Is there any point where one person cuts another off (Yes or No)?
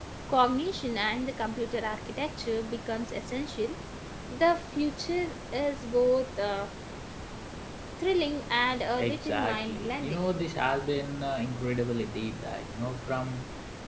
Yes